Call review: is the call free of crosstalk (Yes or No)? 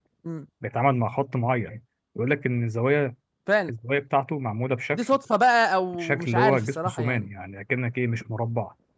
No